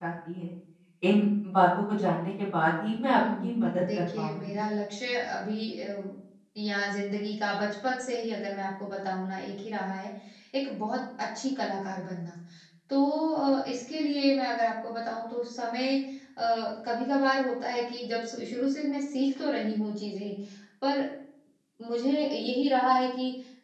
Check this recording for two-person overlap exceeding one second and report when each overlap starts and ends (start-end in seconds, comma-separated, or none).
3.2-4.6